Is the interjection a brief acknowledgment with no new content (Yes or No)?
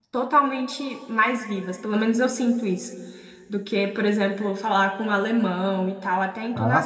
No